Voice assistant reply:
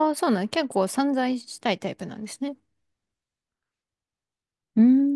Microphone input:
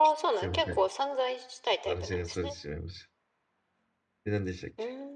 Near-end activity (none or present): present